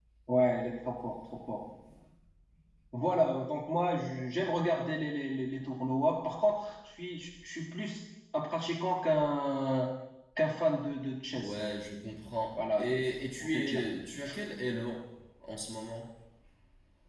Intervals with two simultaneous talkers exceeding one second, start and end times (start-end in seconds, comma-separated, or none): none